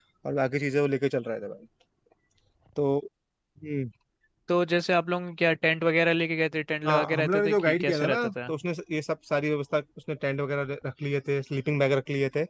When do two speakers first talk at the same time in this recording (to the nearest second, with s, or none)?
7 s